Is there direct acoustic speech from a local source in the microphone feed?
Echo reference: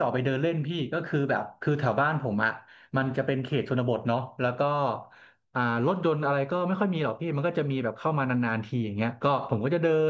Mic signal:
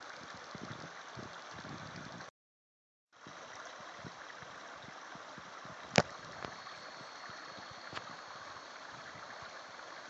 No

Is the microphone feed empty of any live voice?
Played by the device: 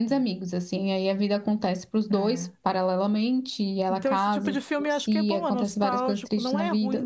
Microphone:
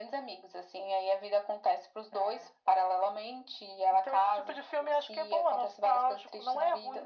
Yes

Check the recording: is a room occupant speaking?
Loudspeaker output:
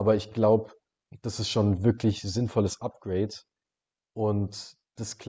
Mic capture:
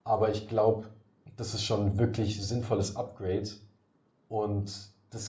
No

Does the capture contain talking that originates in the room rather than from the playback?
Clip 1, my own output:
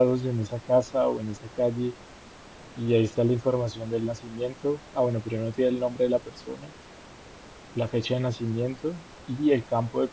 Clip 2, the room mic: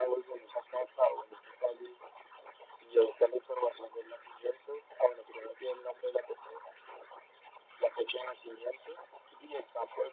No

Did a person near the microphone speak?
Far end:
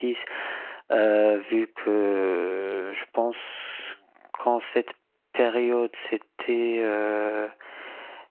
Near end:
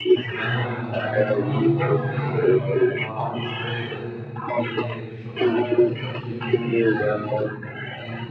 Yes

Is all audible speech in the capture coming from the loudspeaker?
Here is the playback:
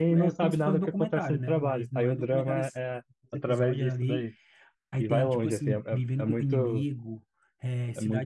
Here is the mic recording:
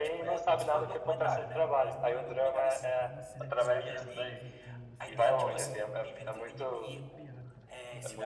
No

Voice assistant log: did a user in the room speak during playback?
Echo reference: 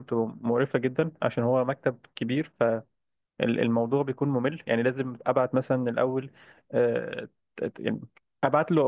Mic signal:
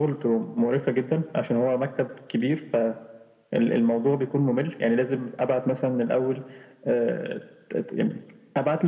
No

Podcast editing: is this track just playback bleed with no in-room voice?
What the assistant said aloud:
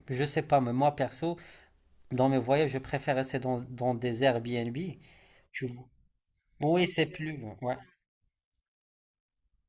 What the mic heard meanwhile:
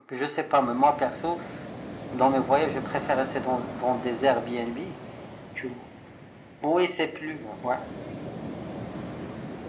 Yes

